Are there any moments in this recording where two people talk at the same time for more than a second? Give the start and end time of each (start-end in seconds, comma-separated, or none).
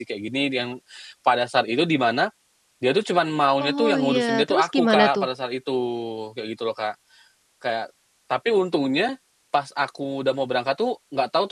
3.6-5.2